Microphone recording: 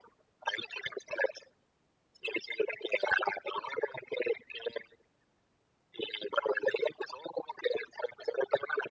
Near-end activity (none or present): none